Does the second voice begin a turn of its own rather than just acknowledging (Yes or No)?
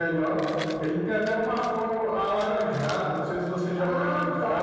Yes